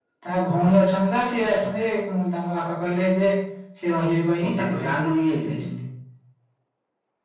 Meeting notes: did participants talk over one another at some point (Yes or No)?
Yes